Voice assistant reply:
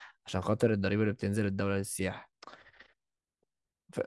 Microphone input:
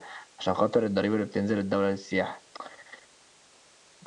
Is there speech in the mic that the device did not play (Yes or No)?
No